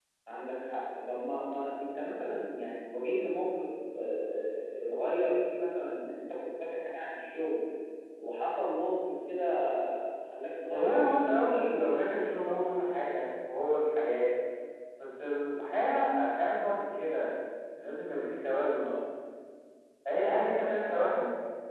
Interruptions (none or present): present